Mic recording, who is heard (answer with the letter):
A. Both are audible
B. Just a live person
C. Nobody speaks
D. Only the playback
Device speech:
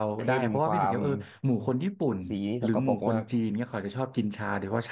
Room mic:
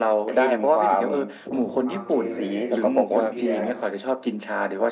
A